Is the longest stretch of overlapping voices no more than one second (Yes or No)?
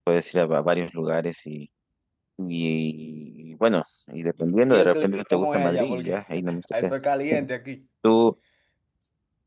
No